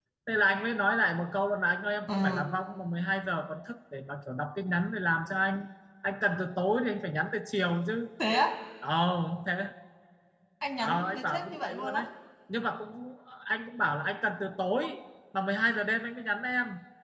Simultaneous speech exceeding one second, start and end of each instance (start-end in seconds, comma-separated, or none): 10.8-12.0